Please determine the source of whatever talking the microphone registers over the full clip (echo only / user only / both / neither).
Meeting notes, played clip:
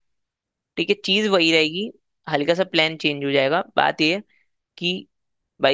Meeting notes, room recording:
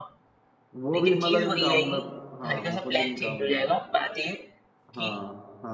both